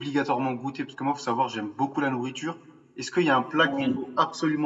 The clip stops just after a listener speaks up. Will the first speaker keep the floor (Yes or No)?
Yes